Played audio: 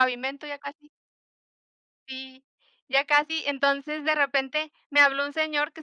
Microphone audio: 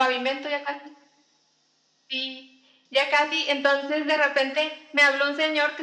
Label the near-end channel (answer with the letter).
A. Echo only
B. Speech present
A